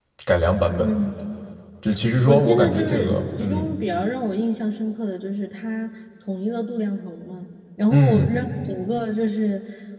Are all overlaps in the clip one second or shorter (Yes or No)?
No